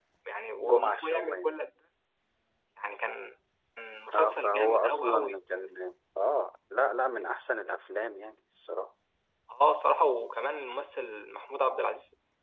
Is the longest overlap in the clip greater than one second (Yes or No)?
Yes